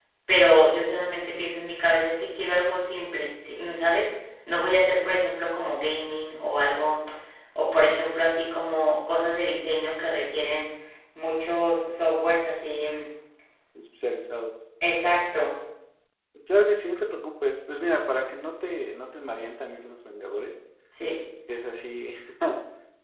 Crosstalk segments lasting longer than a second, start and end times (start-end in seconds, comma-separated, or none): none